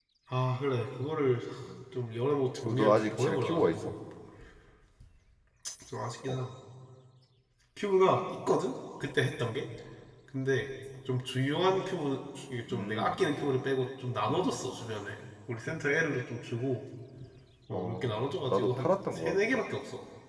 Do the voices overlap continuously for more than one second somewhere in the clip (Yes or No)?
Yes